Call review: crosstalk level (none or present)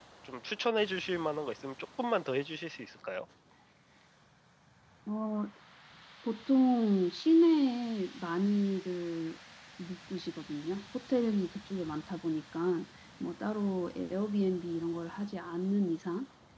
none